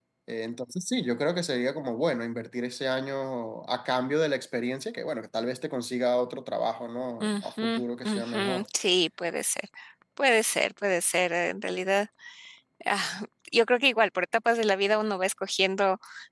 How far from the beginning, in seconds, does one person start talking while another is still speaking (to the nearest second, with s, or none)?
7 s